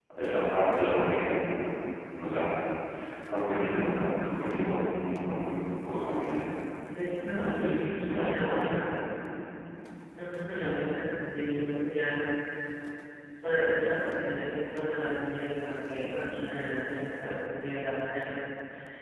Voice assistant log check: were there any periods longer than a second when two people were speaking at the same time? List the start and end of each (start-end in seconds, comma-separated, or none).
7.4-8.7